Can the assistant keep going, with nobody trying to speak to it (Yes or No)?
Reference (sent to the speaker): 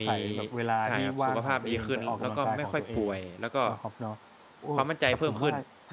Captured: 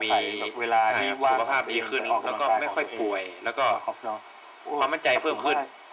Yes